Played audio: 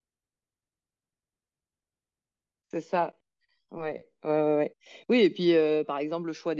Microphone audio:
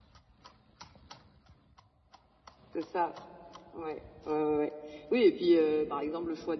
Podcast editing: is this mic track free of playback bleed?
No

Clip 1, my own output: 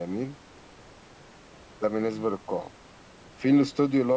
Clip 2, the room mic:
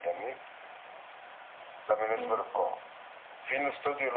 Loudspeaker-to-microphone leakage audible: Yes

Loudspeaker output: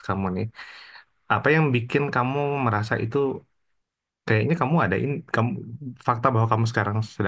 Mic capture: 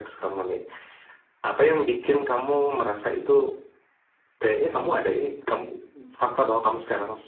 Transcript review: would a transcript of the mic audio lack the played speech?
No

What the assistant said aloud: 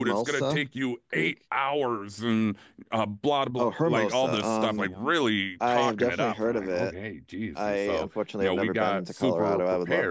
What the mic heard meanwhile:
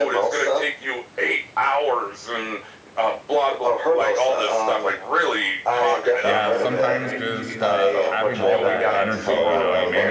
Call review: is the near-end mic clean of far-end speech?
No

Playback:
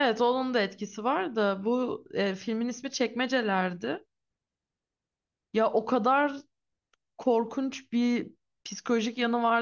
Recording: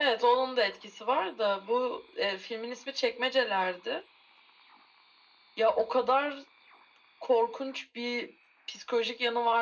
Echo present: Yes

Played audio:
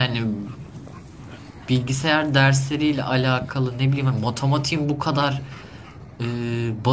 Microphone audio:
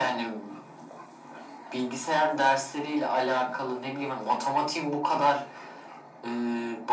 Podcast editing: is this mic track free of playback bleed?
No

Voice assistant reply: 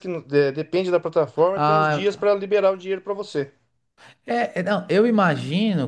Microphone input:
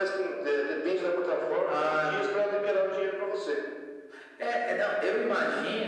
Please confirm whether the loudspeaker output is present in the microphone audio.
Yes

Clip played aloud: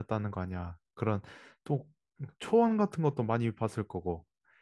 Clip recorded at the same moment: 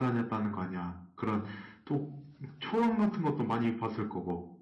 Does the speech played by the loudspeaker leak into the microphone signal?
Yes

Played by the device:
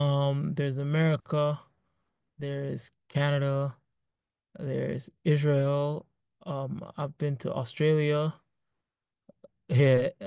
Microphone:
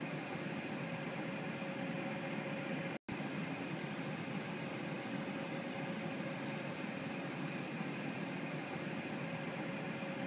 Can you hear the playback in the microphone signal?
No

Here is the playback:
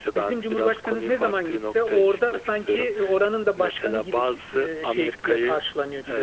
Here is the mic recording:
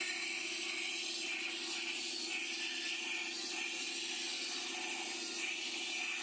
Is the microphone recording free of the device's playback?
Yes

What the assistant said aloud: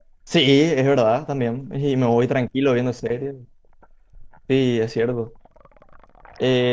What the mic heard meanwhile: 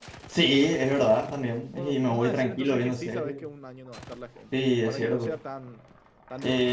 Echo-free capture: No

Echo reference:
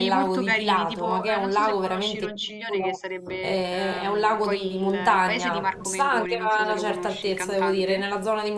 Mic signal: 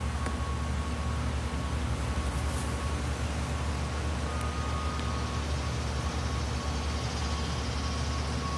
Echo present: No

